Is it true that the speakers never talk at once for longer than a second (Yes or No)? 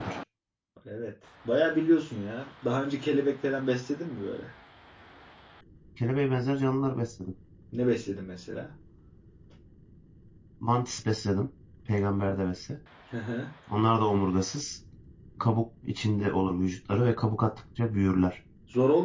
Yes